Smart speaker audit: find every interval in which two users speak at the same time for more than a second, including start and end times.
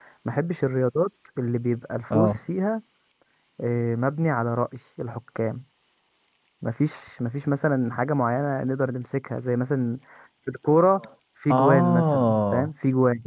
11.5-12.7

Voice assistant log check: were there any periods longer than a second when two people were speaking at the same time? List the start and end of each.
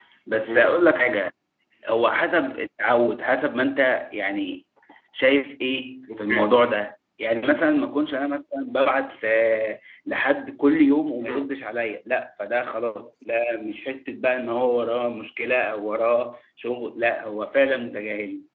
none

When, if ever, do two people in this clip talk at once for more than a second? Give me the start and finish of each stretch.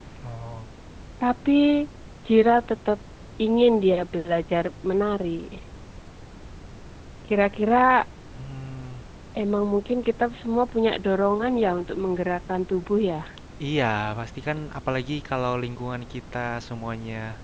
none

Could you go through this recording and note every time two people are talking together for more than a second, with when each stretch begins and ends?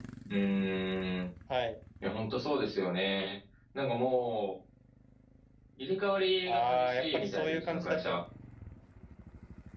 6.5-8.2

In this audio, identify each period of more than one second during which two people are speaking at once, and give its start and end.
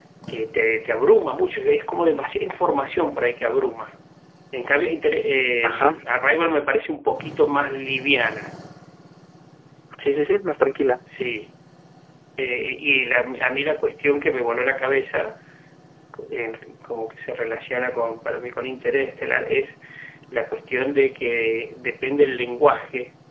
none

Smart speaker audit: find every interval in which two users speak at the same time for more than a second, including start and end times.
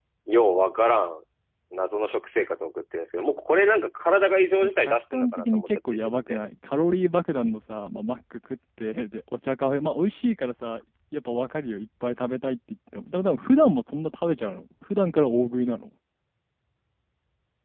4.6-6.4

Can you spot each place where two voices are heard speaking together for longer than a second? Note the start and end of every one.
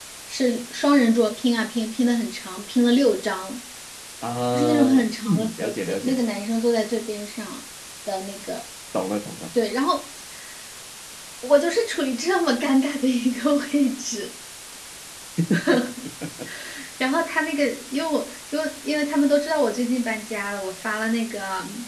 4.5-6.2

